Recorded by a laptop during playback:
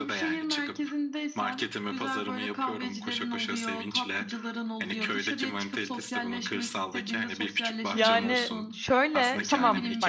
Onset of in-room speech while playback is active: 7.9 s

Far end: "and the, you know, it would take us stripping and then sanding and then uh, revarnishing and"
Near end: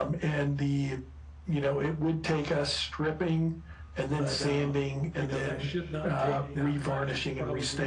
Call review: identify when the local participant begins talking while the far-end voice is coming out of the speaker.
4.1 s

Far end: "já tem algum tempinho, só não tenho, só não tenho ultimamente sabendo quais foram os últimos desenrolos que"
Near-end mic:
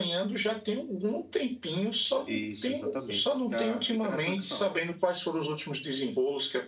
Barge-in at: 2.2 s

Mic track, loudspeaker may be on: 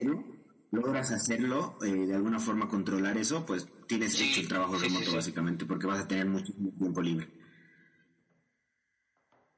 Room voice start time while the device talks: 4.1 s

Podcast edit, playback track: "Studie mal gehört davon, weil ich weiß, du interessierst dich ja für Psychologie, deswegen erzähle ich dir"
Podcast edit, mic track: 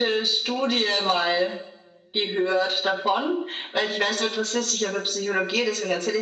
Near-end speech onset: none

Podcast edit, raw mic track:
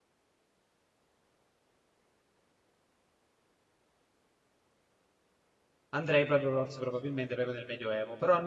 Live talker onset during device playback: 5.9 s

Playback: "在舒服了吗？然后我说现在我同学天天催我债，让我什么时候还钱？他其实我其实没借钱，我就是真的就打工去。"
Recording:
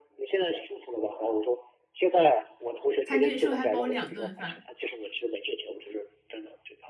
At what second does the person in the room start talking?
3.0 s

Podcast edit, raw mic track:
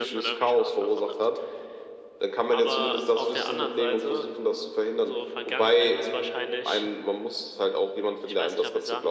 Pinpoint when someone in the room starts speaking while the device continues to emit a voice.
none

